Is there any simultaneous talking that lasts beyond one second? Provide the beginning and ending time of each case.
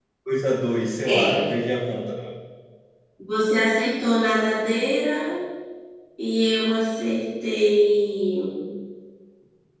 none

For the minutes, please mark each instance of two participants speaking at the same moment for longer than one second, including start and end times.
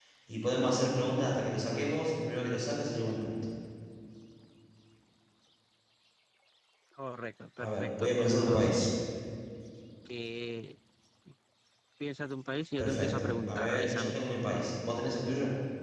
7.6-8.9, 12.8-14.1

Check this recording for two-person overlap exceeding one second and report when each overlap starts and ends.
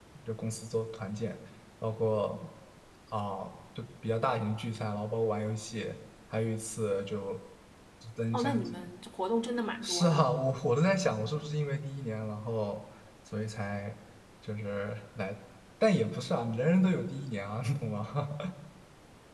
none

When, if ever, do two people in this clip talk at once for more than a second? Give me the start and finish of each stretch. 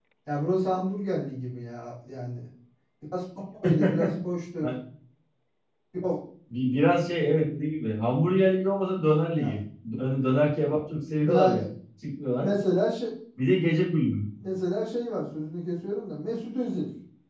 none

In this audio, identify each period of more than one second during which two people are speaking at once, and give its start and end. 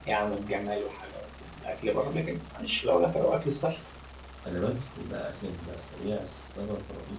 none

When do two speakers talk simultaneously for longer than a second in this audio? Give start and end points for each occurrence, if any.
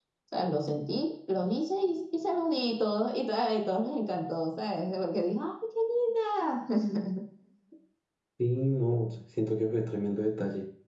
none

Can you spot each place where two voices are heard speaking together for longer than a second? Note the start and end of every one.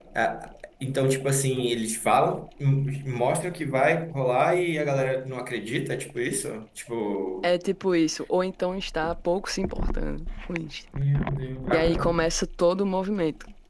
none

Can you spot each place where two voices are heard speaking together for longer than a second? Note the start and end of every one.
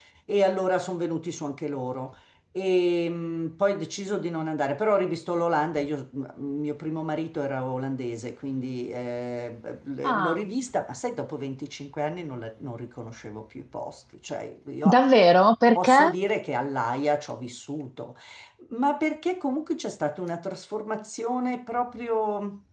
none

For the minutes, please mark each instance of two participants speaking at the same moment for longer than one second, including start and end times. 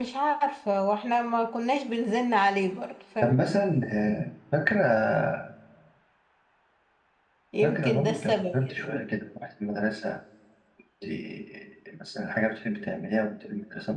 7.6-8.8

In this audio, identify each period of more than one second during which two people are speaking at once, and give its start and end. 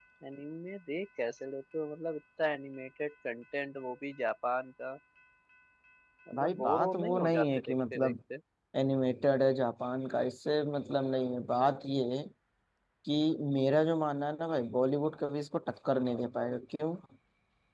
6.4-8.1

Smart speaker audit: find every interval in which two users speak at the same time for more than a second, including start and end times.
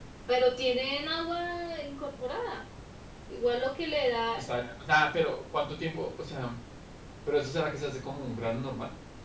none

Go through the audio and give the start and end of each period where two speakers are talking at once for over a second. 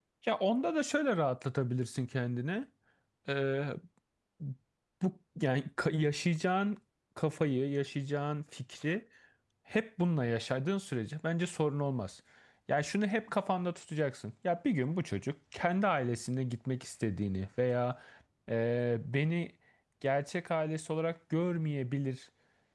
none

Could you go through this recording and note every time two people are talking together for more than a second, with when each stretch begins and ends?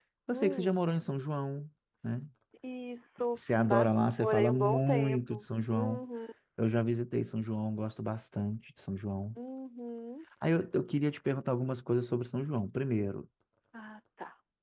3.4-6.0

